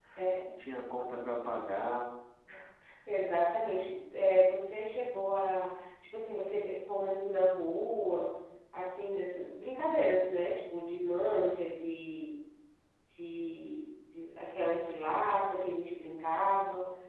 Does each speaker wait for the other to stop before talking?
Yes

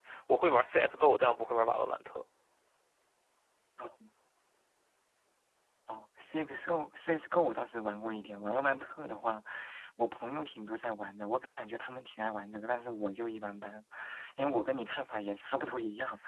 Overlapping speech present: No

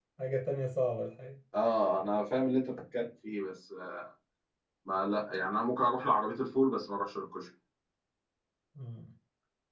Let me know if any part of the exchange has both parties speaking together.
No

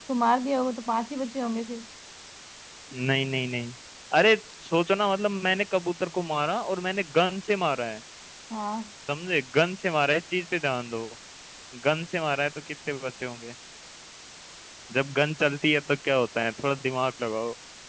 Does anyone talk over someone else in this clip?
No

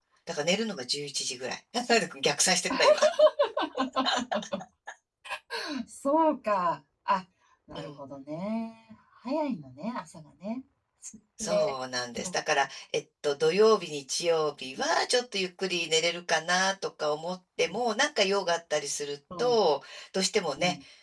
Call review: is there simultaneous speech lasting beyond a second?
No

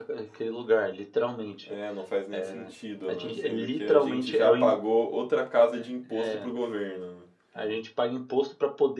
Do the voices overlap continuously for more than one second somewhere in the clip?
Yes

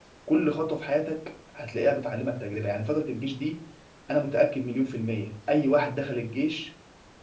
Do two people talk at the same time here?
No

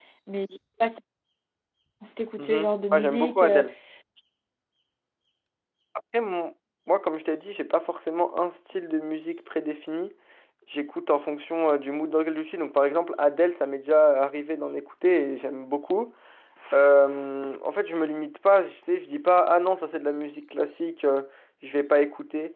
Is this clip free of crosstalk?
No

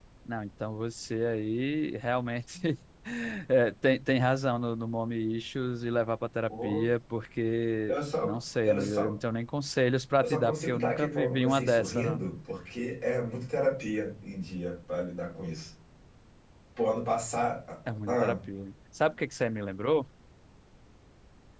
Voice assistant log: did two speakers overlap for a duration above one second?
Yes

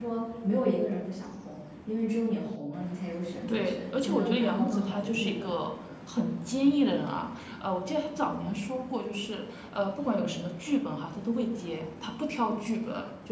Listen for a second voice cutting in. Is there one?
Yes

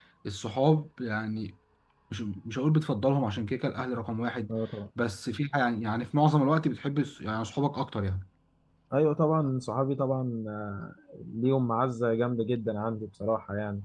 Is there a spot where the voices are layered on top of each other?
No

